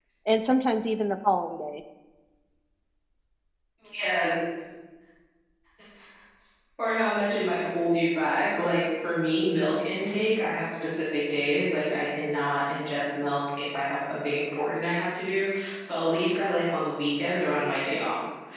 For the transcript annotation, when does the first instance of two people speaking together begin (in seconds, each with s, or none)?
none